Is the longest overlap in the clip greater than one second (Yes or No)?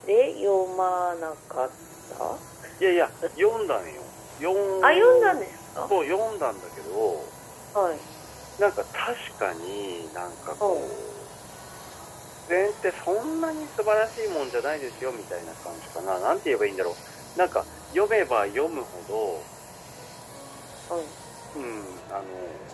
No